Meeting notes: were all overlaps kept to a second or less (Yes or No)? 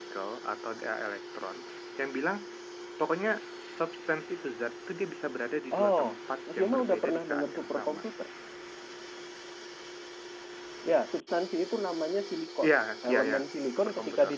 No